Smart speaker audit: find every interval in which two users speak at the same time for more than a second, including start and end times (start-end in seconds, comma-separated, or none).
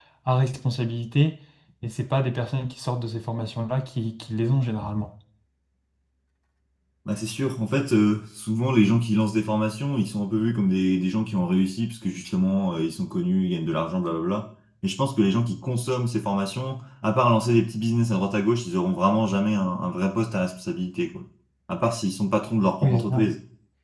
none